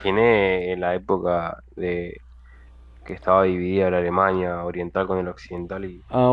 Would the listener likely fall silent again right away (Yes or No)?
No